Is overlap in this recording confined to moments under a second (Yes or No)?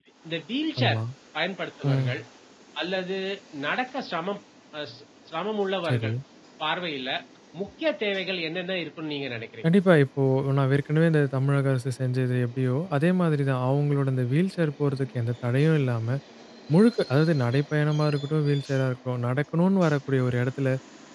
Yes